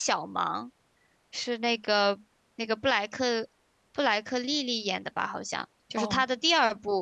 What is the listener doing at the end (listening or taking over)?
listening